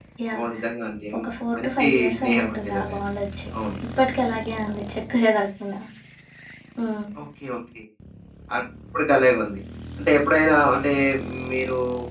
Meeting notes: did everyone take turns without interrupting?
No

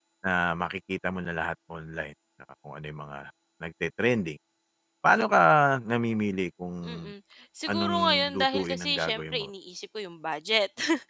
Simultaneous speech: Yes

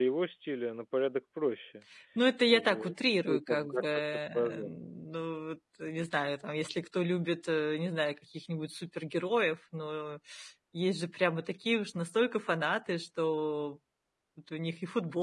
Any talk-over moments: Yes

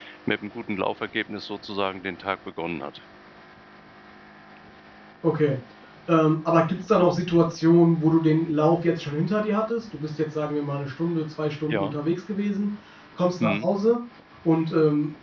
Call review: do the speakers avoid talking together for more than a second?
Yes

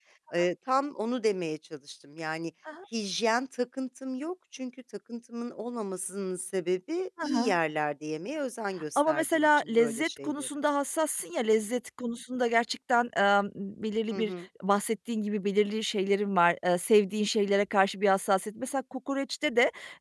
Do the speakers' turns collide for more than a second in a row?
Yes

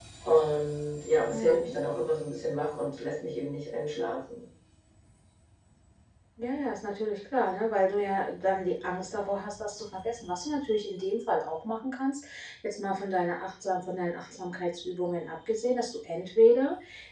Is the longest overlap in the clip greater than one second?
No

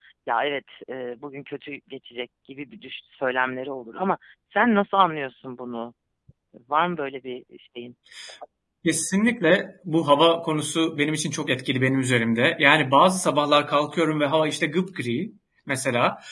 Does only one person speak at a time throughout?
Yes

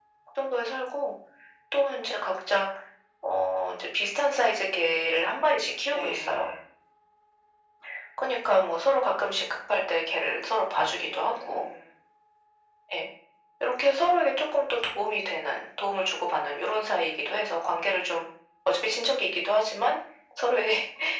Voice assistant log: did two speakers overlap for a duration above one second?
No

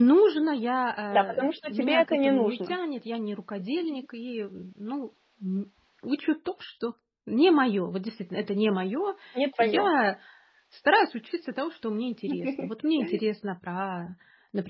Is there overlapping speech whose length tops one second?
Yes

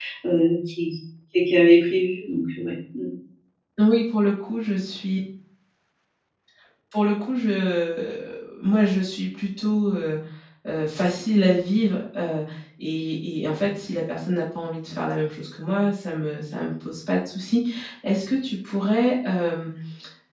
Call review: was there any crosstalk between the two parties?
No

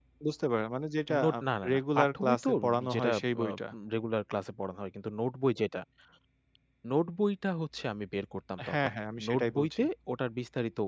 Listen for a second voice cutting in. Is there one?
Yes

